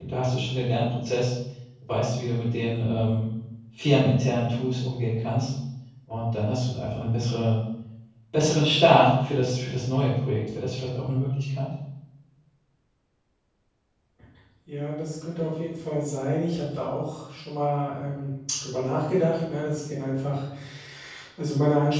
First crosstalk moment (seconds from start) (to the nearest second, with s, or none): none